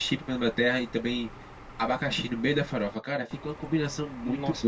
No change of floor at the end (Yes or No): No